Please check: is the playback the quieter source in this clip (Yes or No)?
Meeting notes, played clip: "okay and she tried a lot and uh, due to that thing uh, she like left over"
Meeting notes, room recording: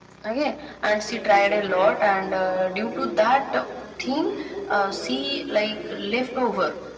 No